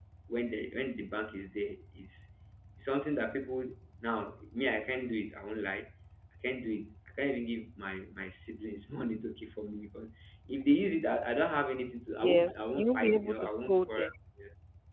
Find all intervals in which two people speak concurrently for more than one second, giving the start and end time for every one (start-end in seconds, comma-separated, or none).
12.2-14.1